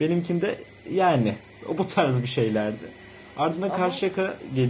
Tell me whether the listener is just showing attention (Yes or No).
Yes